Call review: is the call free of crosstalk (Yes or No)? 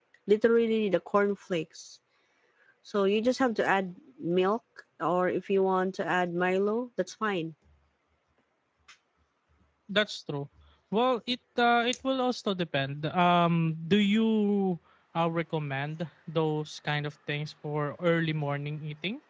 Yes